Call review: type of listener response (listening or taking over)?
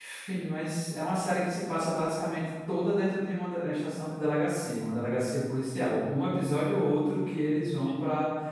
listening